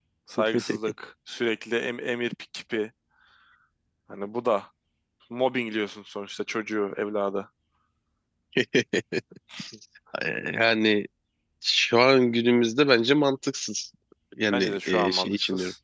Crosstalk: present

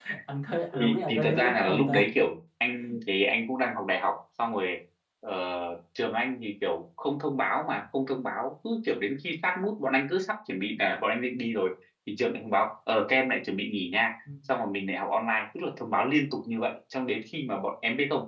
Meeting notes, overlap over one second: present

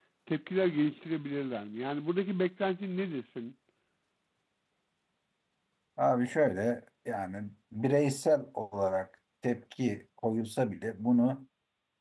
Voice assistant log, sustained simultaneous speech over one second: none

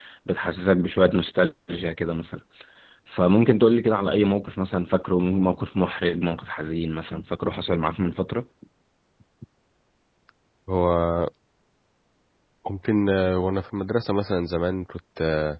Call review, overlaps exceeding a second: none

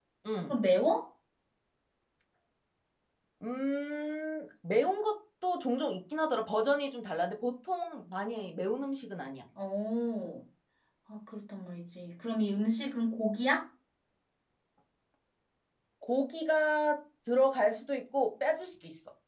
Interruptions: none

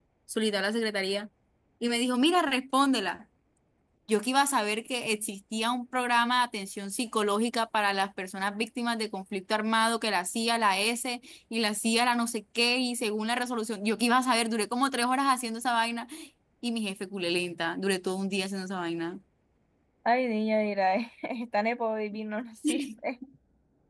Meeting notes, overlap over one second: none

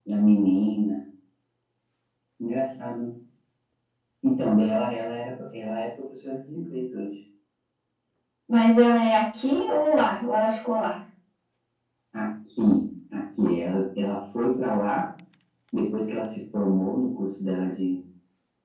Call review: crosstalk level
none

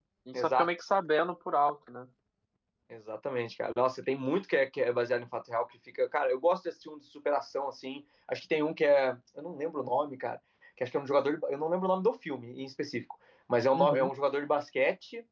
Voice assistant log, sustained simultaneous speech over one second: none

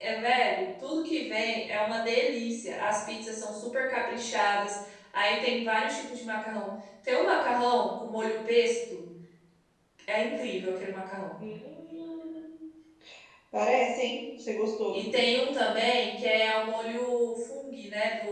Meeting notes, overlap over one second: none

